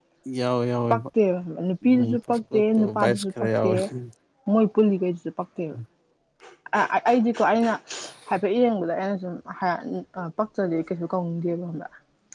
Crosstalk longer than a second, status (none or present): present